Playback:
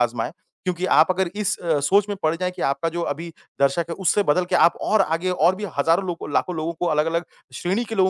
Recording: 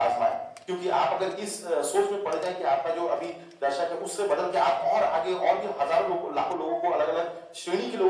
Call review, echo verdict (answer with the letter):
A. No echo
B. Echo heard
B